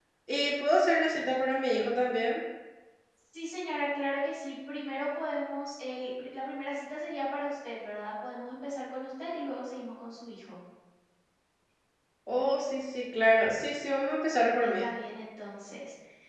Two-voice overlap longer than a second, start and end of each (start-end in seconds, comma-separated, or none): none